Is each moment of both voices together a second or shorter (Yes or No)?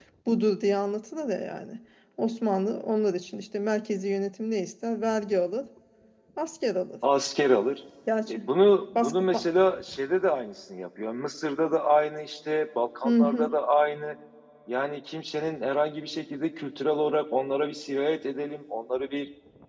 Yes